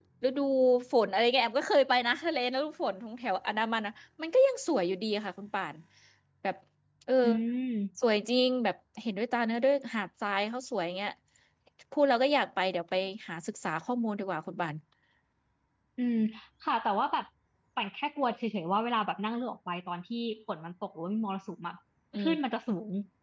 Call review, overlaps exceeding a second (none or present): none